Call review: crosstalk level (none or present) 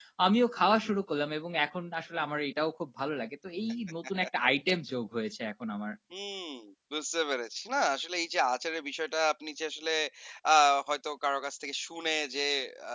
none